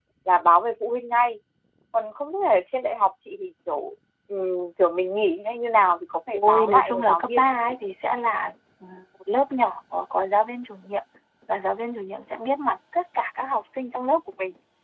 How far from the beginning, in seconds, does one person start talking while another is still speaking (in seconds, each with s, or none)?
6.3 s